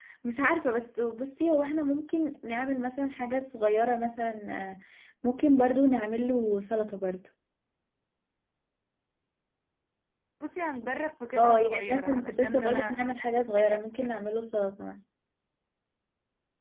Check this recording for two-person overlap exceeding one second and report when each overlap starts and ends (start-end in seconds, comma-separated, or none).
11.3-14.1